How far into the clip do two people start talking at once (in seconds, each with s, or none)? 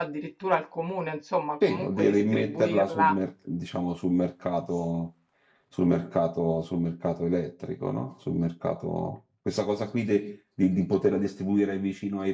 1.6 s